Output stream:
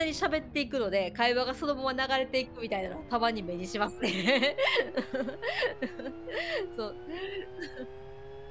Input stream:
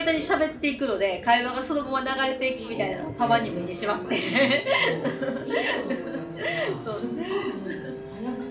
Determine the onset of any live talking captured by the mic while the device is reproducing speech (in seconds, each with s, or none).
2.5 s